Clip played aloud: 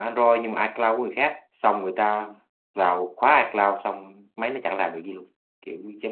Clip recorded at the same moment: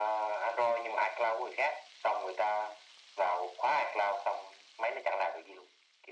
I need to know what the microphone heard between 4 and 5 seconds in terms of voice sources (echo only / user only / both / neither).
echo only